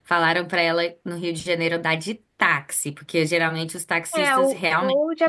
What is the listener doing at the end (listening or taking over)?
taking over